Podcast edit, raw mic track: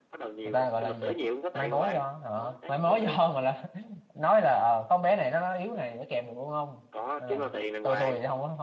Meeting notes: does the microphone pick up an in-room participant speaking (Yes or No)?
Yes